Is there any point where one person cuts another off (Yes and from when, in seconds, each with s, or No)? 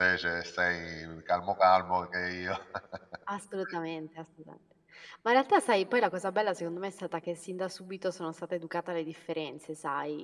No